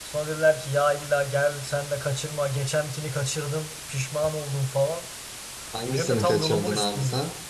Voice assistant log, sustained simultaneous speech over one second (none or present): present